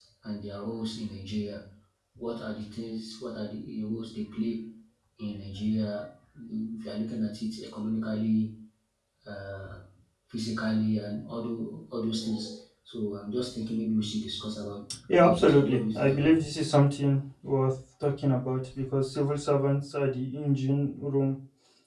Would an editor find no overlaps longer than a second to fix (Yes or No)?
No